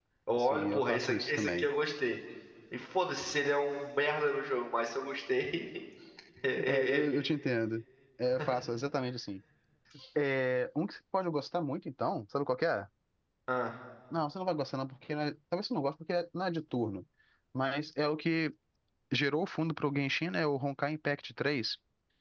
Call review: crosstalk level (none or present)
present